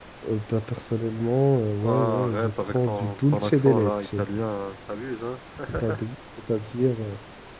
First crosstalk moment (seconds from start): 1.8 s

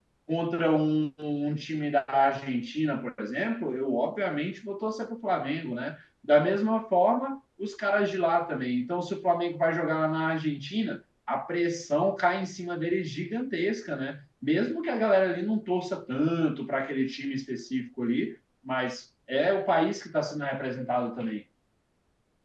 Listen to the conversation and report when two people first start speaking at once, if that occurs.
none

